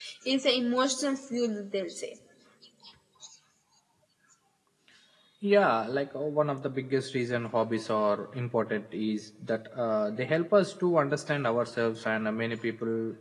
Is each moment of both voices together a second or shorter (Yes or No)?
Yes